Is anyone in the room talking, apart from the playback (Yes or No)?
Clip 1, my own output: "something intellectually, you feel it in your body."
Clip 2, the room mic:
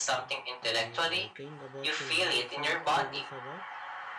Yes